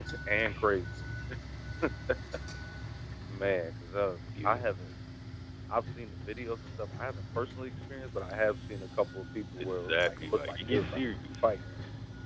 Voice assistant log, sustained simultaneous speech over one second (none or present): present